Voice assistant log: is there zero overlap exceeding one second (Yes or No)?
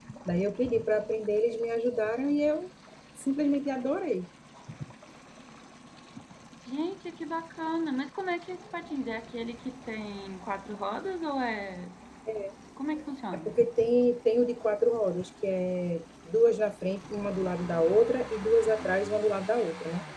Yes